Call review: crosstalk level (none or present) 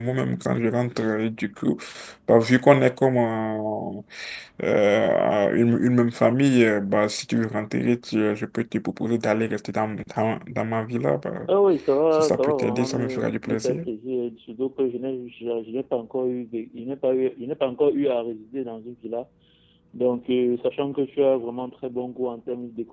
present